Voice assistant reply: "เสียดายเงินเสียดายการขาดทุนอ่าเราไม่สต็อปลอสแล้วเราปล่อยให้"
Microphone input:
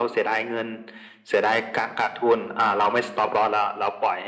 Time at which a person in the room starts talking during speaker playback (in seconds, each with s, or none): none